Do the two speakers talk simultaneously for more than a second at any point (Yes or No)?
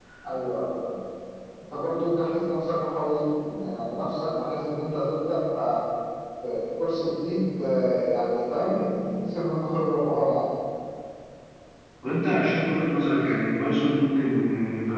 No